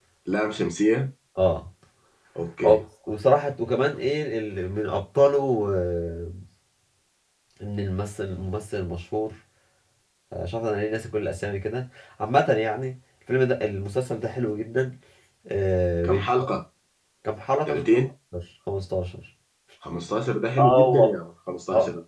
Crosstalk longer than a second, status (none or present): none